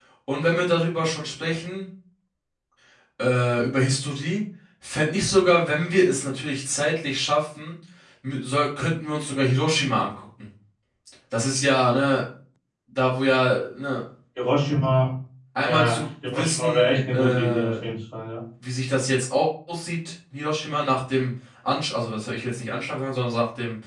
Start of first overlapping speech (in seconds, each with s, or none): 15.6 s